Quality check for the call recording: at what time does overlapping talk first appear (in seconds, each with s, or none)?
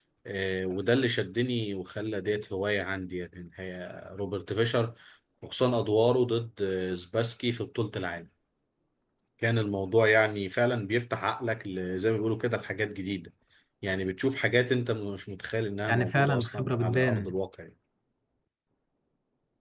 15.9 s